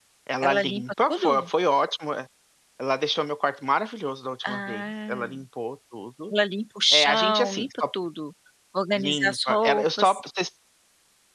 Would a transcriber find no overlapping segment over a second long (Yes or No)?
No